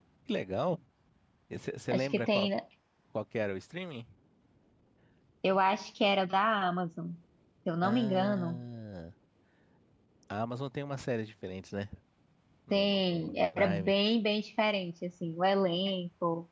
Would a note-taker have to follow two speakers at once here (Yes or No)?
Yes